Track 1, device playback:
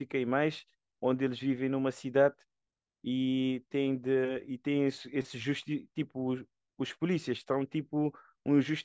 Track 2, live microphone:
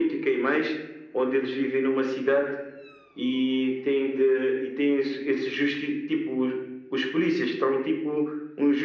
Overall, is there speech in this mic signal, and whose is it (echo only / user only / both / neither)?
echo only